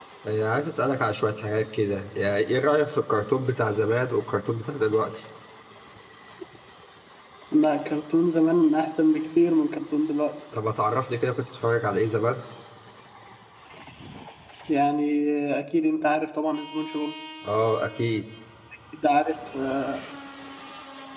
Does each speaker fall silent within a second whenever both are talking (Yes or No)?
Yes